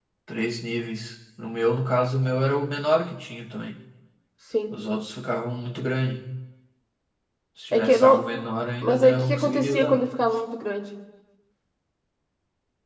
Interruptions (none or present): present